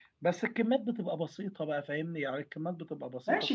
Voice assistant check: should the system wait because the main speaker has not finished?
No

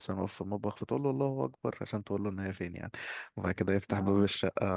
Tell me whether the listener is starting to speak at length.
No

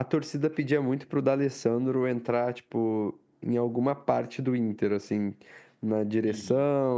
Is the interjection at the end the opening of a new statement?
No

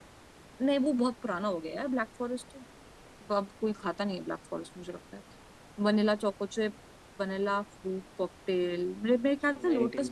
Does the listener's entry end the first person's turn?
No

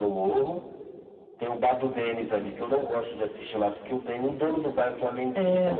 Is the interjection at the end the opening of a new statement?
Yes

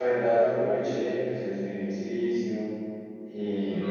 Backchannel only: Yes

